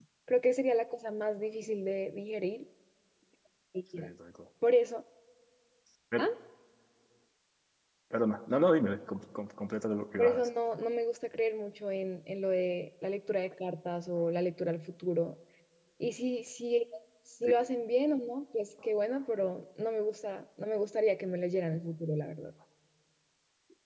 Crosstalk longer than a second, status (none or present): none